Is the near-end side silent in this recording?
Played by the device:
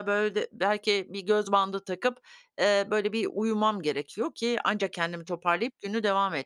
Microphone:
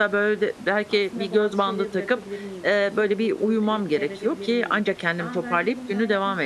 No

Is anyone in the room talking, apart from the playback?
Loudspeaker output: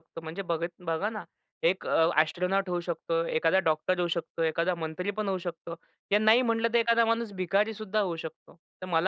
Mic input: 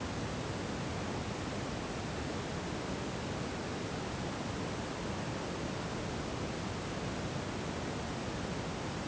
No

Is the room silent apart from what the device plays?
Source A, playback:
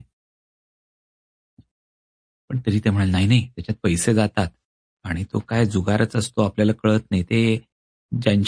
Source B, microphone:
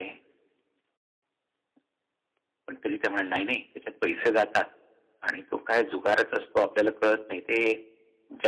Yes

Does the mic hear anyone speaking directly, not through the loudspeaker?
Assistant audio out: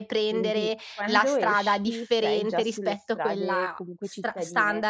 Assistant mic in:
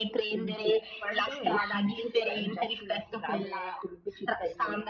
No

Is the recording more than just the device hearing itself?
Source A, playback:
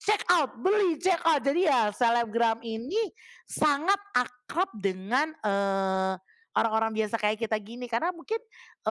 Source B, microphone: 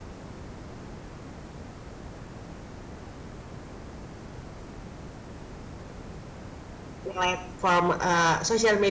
Yes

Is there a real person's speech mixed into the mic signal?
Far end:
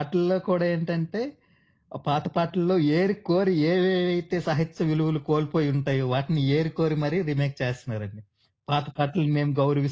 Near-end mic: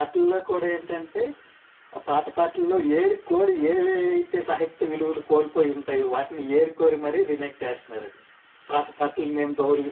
No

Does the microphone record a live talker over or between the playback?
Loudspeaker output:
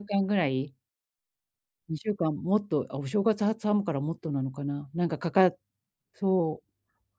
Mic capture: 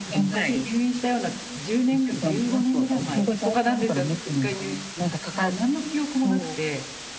Yes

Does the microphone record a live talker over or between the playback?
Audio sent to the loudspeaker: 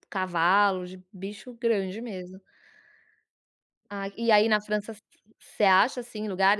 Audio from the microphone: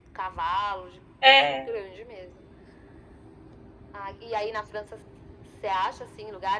Yes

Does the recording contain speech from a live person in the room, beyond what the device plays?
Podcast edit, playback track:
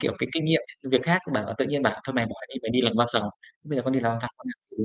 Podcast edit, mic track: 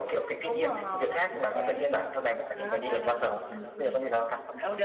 Yes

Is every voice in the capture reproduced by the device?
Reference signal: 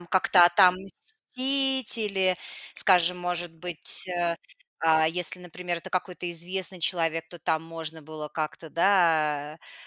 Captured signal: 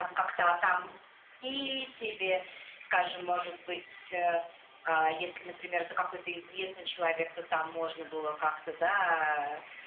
Yes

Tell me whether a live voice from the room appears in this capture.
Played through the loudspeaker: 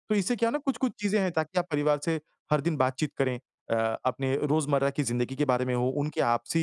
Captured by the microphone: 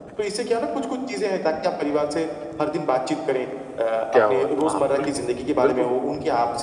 Yes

